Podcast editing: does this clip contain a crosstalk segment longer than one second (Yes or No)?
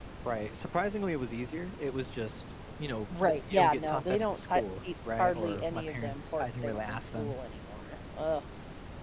Yes